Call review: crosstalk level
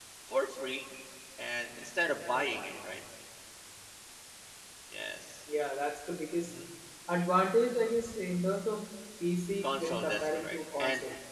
present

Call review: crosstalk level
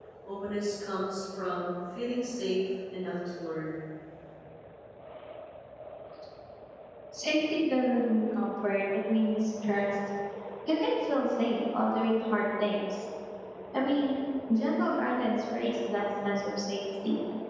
none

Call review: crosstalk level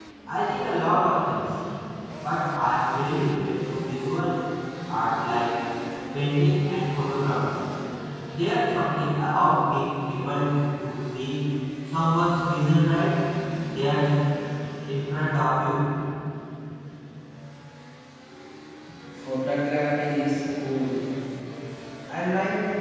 none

